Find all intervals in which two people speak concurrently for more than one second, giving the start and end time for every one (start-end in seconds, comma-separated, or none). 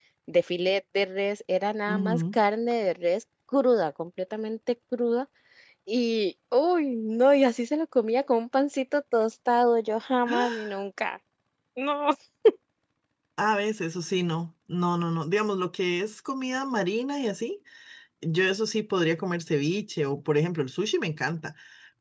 none